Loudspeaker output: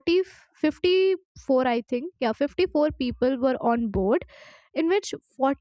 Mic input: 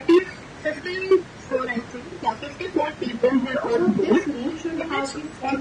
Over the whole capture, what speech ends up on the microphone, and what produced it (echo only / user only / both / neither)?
both